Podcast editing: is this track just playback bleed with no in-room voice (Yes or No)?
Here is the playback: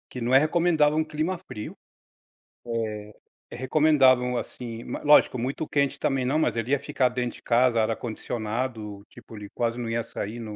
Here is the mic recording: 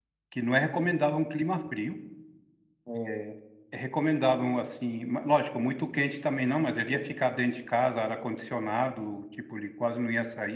Yes